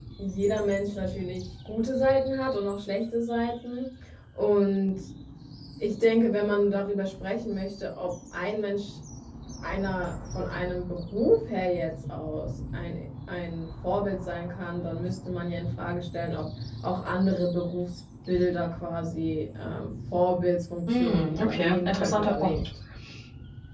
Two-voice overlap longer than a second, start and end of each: 20.9-22.7

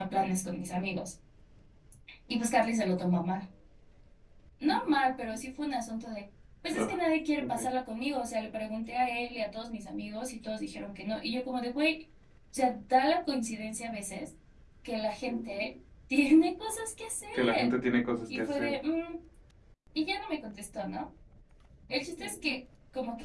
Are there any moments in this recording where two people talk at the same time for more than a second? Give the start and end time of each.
none

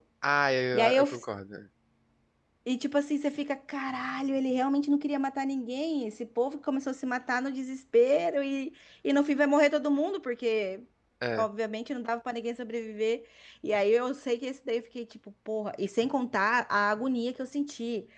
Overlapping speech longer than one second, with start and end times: none

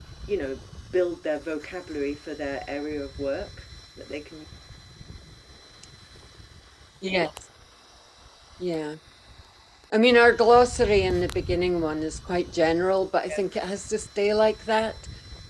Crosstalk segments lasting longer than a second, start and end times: none

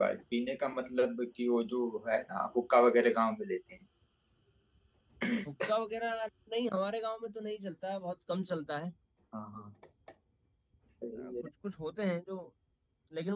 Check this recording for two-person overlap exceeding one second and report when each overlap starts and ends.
none

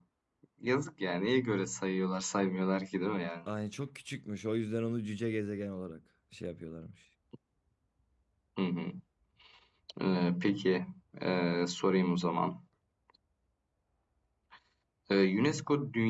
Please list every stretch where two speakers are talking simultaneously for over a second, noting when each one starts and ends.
none

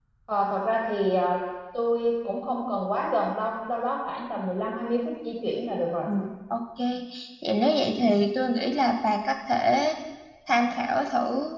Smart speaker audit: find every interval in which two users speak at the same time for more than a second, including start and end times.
none

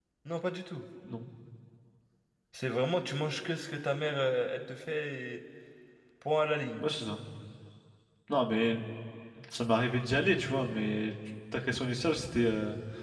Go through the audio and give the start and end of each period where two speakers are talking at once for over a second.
none

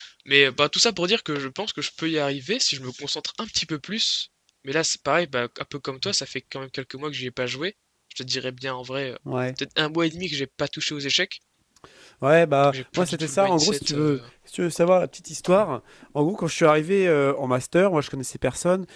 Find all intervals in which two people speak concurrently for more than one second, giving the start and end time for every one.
12.6-14.2

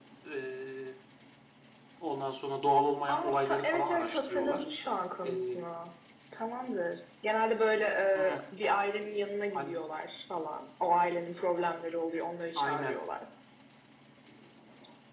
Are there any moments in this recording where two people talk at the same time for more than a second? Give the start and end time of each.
3.1-4.6

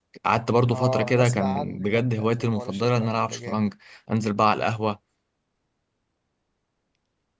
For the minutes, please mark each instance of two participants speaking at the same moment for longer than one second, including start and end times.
0.7-3.6

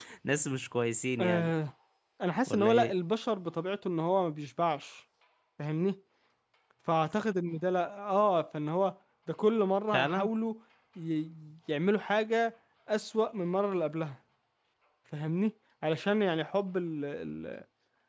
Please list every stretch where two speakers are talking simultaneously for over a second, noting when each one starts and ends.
none

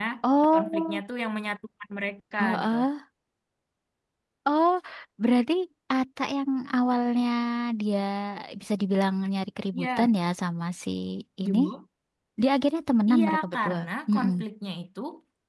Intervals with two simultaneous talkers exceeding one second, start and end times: 13.1-14.3

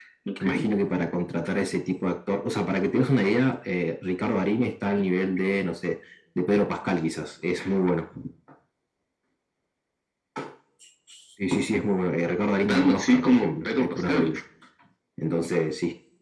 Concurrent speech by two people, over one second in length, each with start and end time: 12.7-14.3

